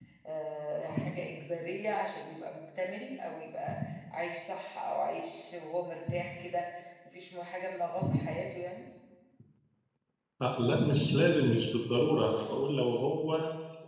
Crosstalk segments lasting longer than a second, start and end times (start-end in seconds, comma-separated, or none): none